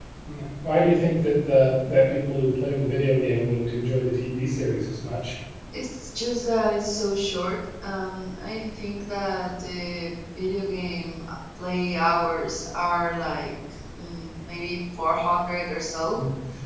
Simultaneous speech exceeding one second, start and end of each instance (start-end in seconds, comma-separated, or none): none